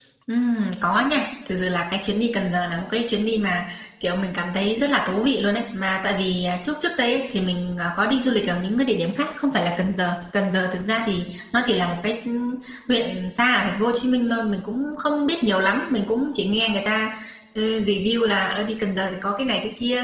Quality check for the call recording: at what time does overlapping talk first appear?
none

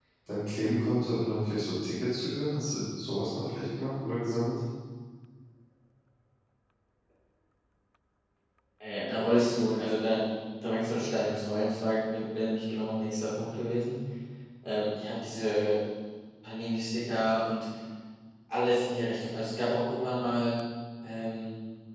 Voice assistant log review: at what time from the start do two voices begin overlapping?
none

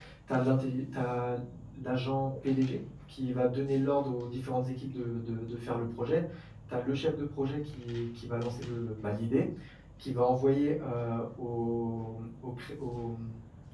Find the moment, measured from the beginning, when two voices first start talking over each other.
none

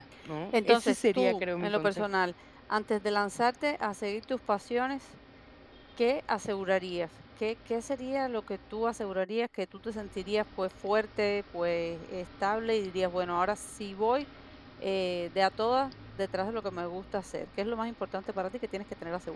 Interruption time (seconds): 0.7 s

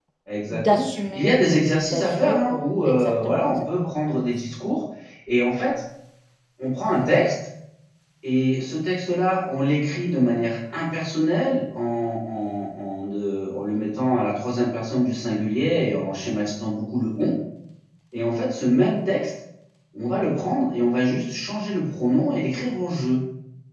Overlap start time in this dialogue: 0.6 s

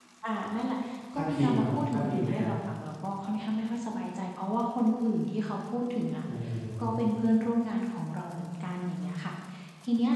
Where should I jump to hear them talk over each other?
1.1 s

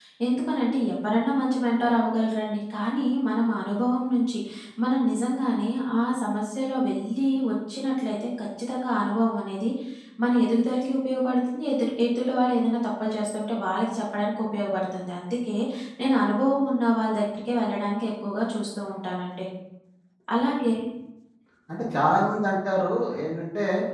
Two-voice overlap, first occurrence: none

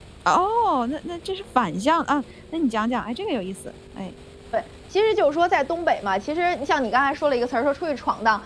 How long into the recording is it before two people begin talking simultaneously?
none

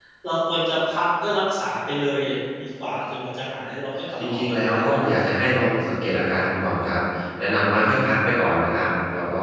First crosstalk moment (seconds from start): 4.2 s

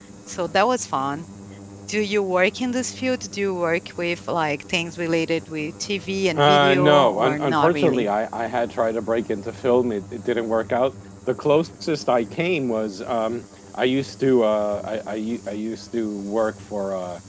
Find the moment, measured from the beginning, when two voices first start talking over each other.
6.4 s

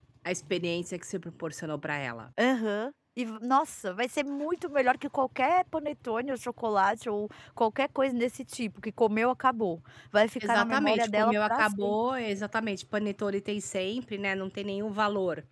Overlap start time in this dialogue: 10.4 s

